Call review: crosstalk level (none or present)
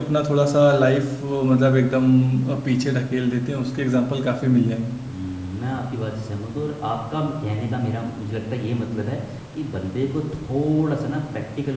none